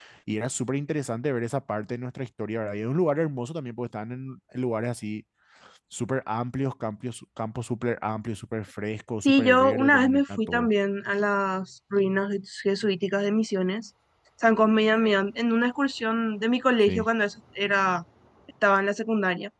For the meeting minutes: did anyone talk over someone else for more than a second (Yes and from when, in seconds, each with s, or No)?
Yes, from 9.2 s